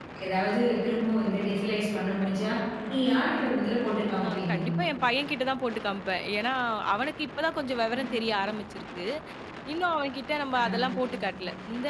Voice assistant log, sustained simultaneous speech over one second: none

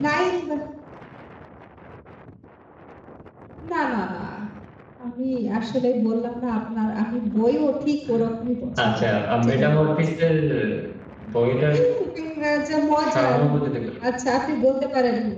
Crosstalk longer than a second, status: present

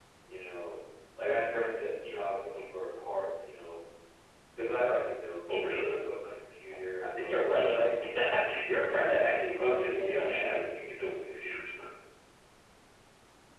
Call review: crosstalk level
present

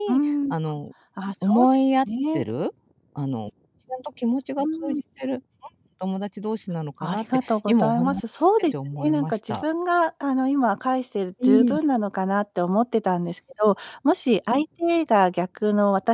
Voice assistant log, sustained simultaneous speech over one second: present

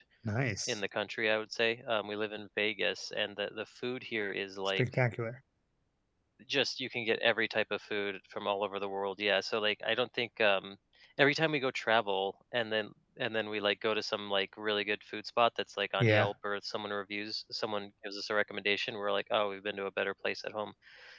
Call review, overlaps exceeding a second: none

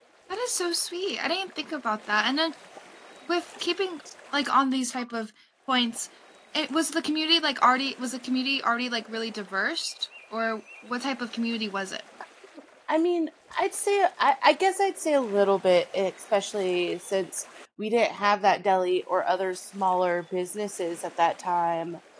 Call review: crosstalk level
none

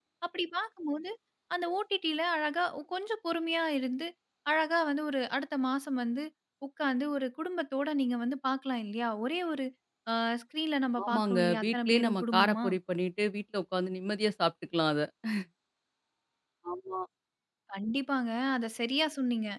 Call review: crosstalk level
present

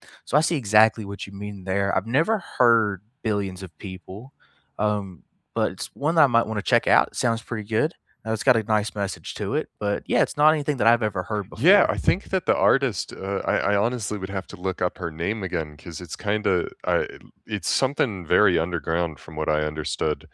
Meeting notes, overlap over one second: none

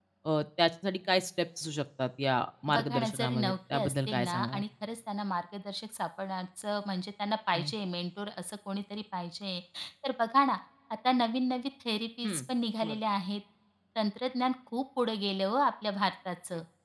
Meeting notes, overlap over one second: present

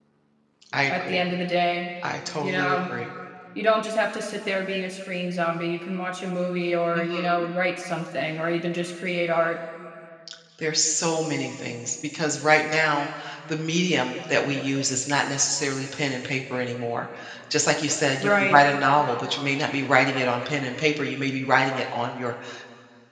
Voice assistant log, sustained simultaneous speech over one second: none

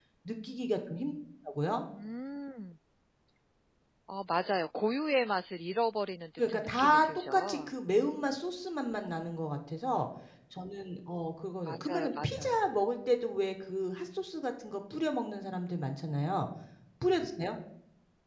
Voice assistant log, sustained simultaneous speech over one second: present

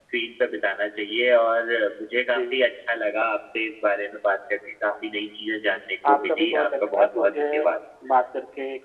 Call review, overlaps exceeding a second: present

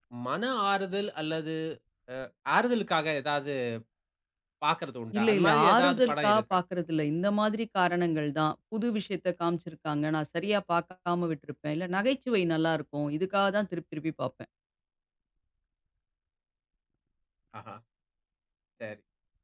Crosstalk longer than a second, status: present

